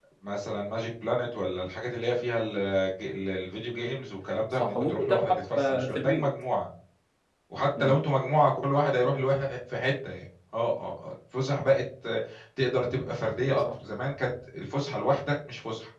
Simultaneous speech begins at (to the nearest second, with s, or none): 5 s